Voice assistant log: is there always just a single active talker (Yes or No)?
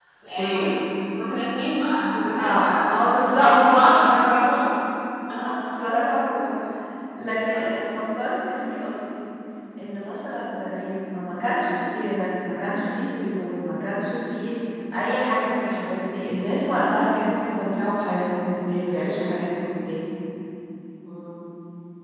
No